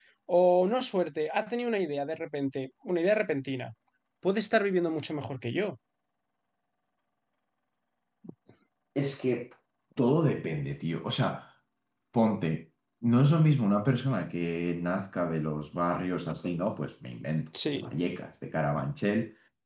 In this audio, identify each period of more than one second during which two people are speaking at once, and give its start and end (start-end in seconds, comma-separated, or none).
none